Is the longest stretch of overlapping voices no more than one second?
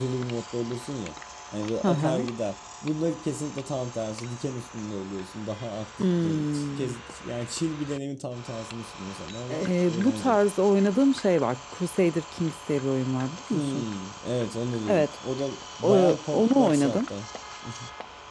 No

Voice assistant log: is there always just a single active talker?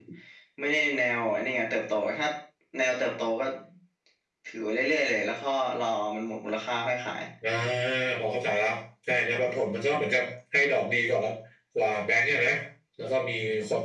Yes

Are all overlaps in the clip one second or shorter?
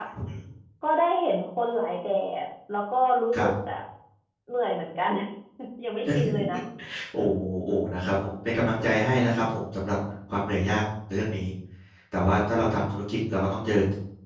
Yes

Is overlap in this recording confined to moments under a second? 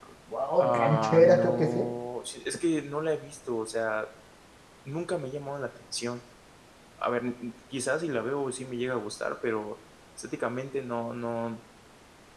No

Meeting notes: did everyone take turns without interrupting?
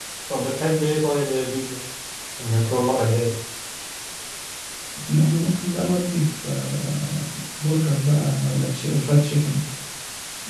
Yes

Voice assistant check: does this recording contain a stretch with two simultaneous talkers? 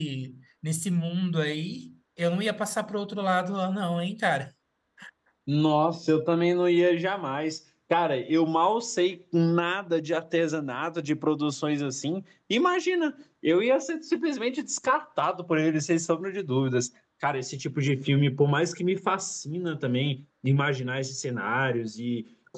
No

